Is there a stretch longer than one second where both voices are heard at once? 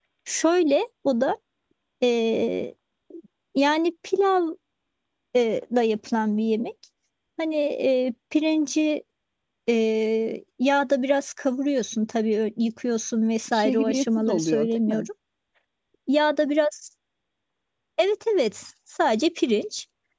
Yes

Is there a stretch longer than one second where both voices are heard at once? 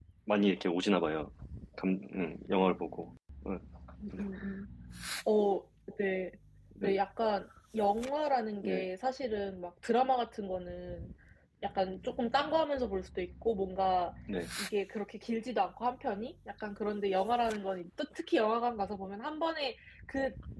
No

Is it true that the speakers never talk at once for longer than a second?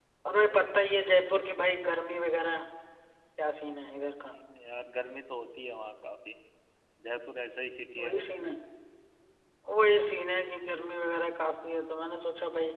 Yes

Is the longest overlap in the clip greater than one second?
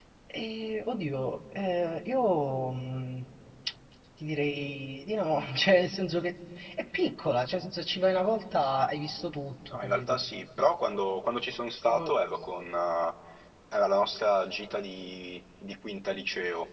No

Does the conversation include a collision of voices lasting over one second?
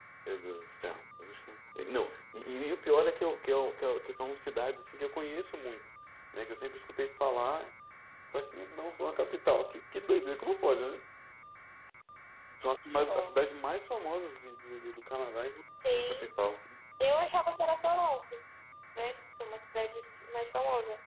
No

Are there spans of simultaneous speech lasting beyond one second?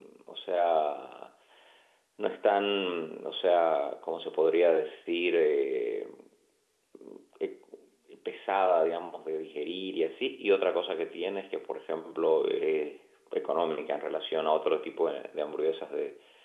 No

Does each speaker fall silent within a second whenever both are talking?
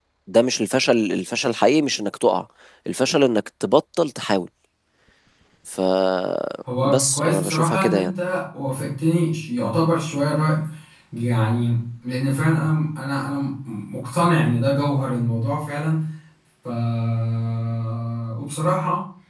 No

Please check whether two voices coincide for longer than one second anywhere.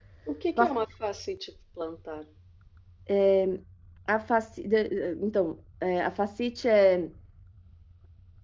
No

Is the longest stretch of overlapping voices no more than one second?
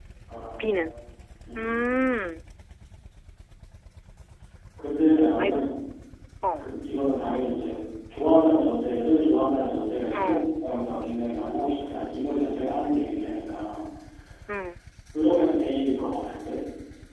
Yes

